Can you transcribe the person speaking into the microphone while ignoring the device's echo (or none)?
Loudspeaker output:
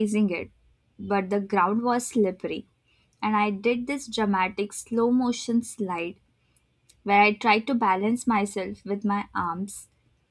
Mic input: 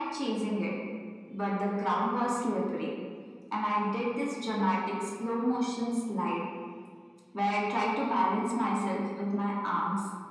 none